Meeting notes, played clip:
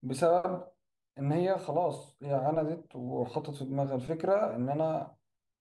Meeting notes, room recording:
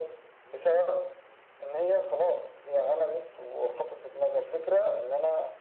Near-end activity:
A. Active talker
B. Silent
B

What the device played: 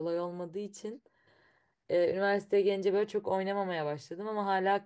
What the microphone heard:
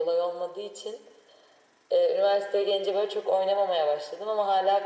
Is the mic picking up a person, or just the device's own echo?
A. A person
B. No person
B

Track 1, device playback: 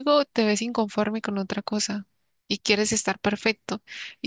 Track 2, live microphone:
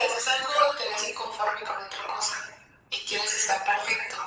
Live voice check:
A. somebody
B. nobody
B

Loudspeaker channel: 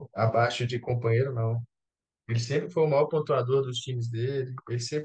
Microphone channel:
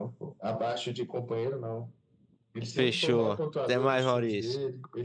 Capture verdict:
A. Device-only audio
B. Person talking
B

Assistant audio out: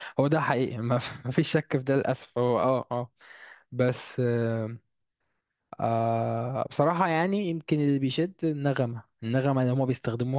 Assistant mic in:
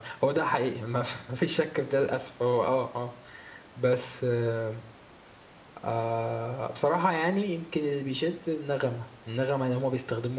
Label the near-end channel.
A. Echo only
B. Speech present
A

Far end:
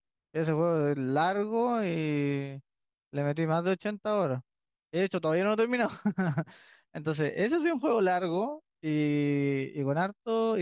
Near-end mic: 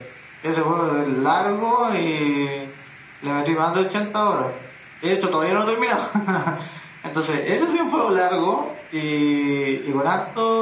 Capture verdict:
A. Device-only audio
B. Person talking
A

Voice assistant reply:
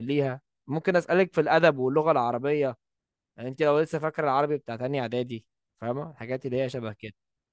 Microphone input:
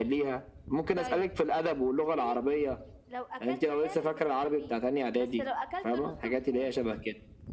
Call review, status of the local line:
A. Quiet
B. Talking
B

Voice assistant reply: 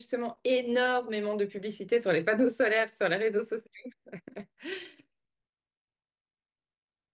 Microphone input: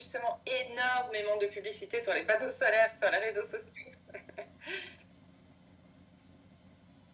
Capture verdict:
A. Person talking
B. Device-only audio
B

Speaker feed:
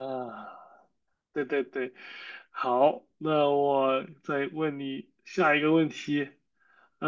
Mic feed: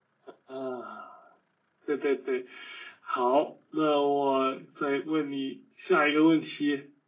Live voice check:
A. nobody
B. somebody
A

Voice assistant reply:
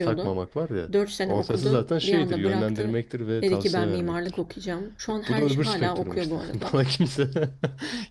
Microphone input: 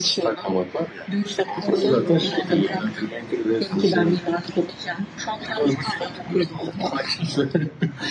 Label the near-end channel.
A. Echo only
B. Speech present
B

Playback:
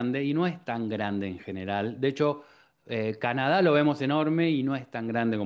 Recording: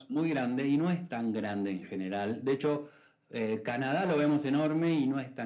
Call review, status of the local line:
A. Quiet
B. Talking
A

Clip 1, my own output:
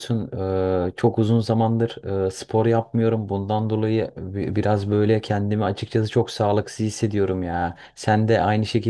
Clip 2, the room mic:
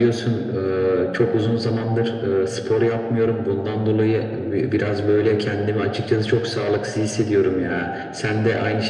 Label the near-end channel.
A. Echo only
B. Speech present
A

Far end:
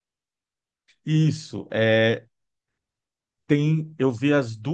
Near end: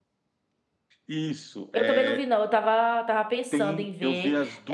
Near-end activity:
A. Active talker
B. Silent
A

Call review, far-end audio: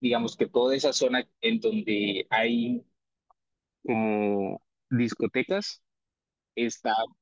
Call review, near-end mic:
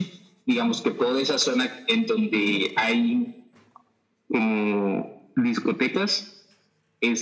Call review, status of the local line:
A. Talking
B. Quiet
B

